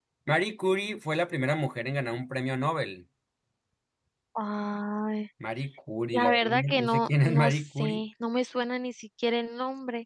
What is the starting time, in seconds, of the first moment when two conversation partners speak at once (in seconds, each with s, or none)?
6.1 s